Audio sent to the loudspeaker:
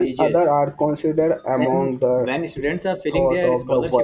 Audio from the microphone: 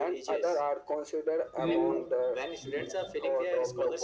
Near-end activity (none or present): present